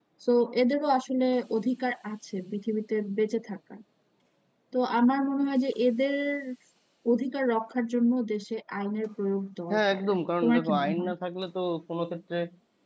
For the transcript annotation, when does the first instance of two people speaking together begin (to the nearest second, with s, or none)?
10 s